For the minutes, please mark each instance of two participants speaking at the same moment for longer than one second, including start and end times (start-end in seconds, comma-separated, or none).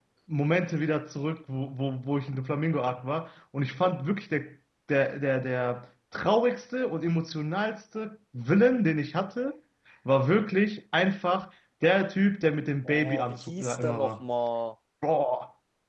12.8-14.2